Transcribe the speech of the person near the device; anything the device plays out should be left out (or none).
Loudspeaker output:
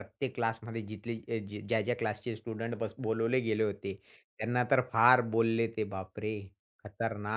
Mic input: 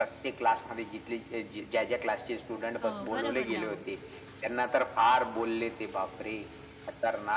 हो, बरोबर ना मग.